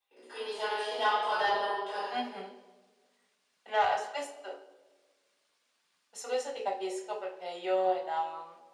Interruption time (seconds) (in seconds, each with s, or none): none